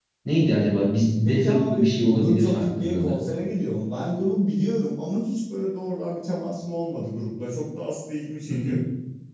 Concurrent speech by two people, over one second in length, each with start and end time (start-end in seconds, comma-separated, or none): 1.2-3.2